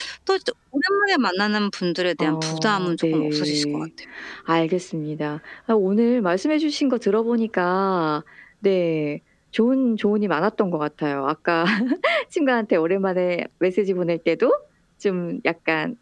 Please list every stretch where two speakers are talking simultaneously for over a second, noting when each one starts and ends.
2.2-3.8

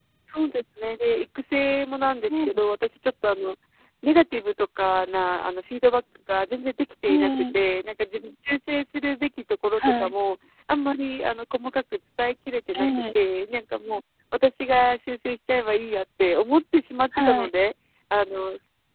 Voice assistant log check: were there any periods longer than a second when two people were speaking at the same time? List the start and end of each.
none

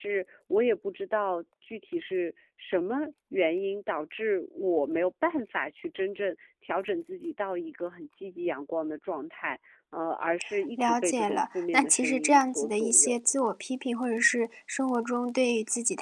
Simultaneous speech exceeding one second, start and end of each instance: 10.8-13.2

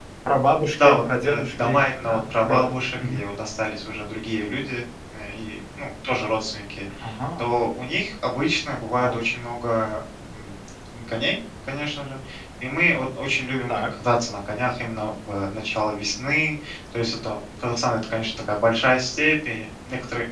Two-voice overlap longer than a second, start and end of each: 0.8-3.2

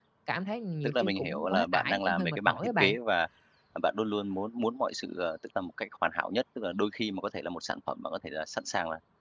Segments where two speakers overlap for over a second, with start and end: 0.8-3.0

